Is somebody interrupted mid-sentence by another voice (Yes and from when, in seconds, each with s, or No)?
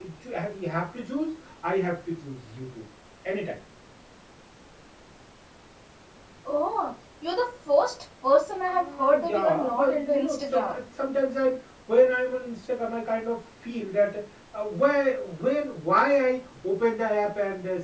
Yes, from 8.7 s